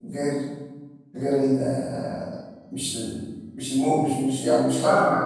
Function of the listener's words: taking over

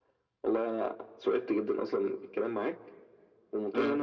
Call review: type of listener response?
listening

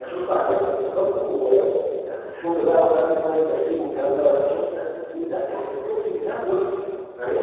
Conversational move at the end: listening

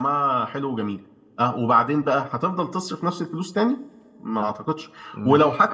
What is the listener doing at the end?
listening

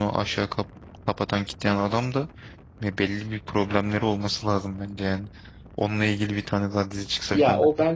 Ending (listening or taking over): taking over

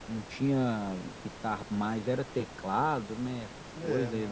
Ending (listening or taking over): taking over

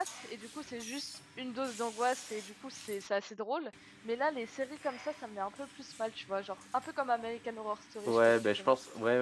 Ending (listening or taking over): taking over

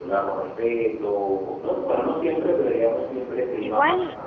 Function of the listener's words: taking over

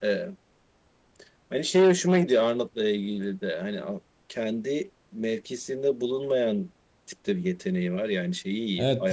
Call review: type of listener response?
taking over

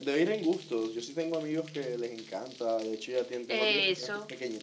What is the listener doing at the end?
listening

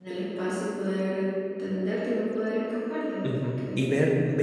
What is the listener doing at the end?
taking over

